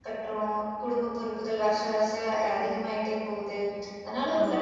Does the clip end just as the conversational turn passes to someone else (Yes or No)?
No